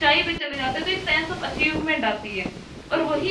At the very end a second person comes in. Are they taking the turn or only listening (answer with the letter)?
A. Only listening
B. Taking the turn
A